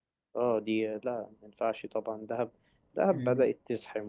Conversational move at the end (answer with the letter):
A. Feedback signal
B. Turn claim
A